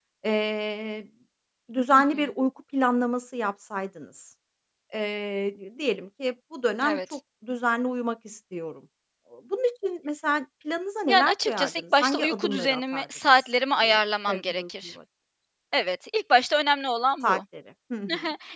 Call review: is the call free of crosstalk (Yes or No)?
No